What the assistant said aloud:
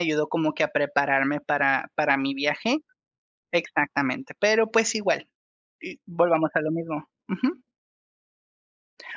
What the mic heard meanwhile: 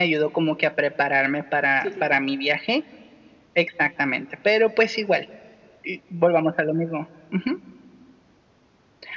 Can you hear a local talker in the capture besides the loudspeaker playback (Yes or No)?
Yes